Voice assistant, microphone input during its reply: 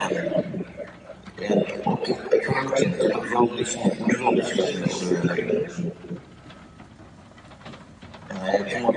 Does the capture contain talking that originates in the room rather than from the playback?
Yes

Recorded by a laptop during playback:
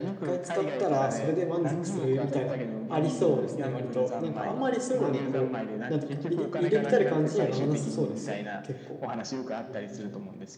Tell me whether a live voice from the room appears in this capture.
Yes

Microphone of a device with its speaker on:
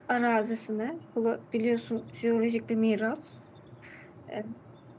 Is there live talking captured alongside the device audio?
Yes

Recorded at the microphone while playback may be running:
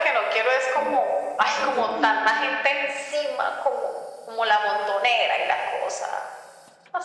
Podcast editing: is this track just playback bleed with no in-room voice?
No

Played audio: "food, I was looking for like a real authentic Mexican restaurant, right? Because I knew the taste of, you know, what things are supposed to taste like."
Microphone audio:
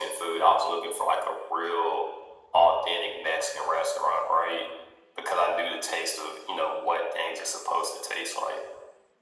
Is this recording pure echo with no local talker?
Yes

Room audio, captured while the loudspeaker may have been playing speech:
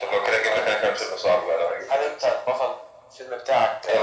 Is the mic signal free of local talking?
Yes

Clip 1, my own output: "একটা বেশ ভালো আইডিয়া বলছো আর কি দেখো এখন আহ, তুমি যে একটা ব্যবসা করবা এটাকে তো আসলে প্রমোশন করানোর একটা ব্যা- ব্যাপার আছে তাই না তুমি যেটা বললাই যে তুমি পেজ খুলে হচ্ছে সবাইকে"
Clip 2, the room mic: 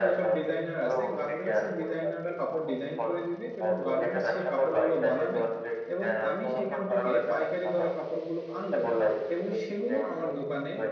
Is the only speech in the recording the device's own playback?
No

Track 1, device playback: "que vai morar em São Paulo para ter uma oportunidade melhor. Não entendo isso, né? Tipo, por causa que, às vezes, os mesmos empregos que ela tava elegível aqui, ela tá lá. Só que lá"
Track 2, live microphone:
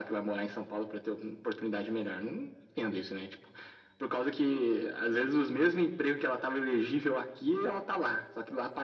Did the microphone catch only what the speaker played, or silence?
Yes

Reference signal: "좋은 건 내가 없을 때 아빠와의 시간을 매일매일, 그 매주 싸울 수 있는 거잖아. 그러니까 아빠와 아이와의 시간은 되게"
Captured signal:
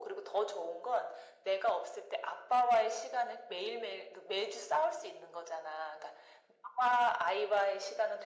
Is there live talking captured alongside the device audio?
No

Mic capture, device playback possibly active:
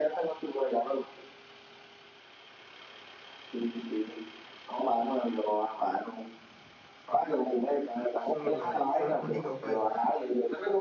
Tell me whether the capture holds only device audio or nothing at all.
No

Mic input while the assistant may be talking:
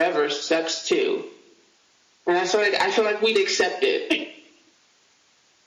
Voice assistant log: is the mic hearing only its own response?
Yes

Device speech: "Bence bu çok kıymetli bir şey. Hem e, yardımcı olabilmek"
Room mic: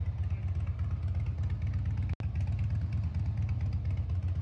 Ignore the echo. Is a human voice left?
No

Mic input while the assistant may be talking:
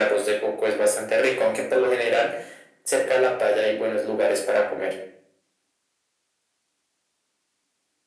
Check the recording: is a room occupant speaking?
No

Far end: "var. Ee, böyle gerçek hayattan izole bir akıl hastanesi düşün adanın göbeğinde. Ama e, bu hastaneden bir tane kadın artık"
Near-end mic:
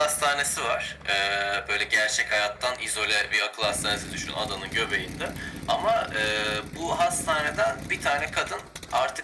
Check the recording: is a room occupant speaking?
No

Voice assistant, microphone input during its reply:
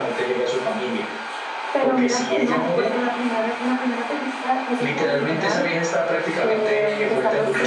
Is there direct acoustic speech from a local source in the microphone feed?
Yes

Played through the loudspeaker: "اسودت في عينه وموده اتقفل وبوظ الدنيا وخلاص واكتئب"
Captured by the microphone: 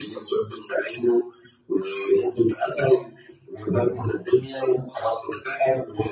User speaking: No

